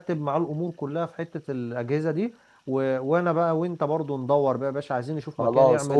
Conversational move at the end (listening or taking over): taking over